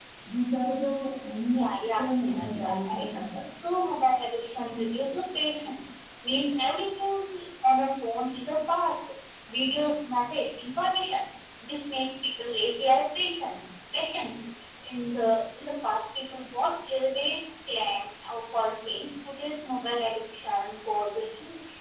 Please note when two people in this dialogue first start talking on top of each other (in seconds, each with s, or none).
1.5 s